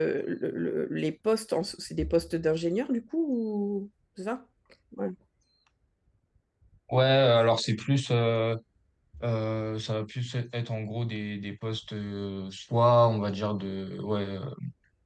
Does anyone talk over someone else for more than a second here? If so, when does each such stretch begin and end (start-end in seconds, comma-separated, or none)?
none